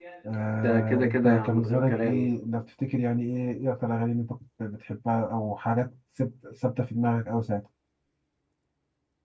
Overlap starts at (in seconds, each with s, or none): 0.6 s